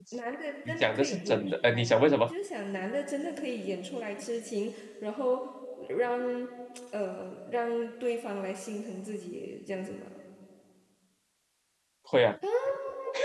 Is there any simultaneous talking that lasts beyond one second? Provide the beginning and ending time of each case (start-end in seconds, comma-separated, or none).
0.7-2.3